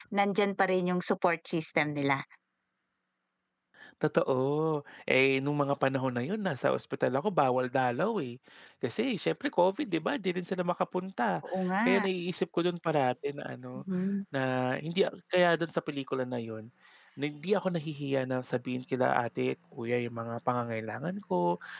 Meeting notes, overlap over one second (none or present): none